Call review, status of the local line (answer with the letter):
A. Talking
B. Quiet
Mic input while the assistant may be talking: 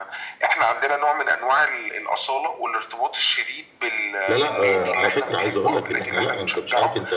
A